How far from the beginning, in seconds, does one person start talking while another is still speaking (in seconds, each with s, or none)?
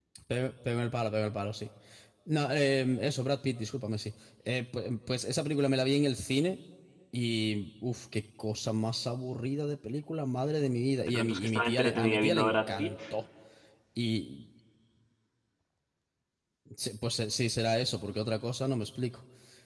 11.1 s